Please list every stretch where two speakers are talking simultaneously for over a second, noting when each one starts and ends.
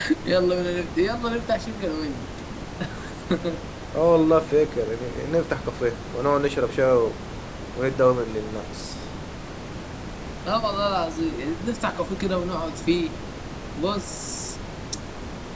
none

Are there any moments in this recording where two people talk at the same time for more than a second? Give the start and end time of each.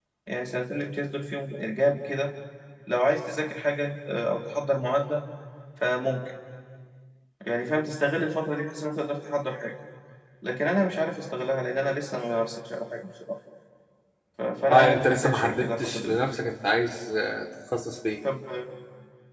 14.7-16.2

